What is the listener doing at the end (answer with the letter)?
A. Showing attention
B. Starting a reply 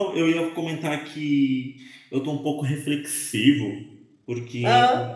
A